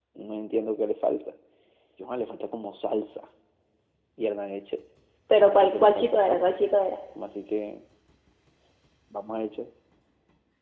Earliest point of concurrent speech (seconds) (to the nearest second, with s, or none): 5 s